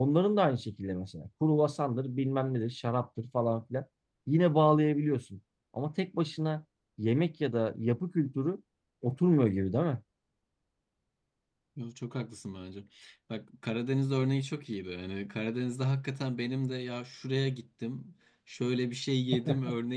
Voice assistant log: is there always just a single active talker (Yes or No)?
Yes